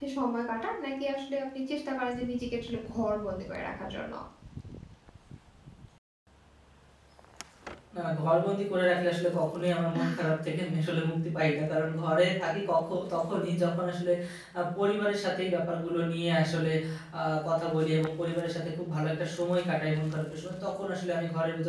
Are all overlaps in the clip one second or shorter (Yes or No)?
Yes